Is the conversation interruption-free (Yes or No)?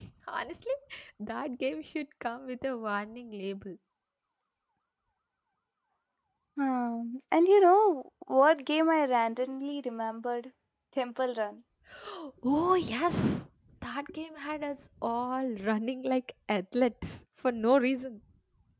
Yes